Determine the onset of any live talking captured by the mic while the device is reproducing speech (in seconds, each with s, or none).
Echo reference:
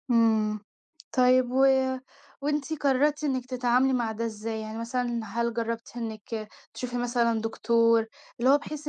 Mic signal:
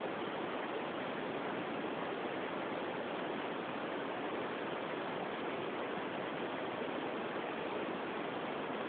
none